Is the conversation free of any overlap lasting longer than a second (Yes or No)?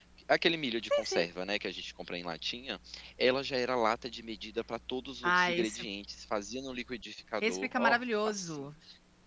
No